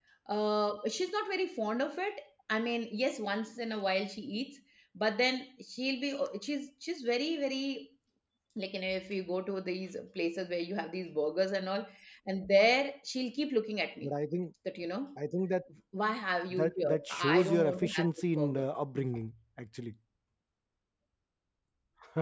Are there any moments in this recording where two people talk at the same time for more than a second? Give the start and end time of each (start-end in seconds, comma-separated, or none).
16.6-18.6